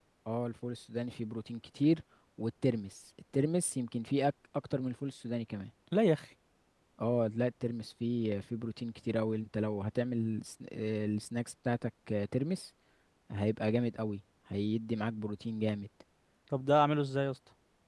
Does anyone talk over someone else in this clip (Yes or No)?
No